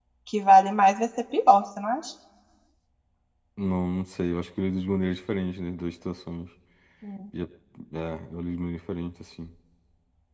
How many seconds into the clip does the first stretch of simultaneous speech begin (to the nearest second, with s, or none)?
none